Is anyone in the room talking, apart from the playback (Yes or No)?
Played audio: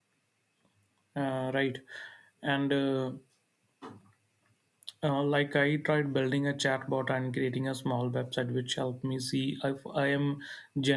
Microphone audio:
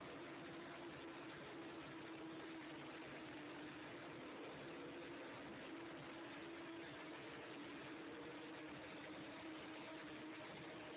No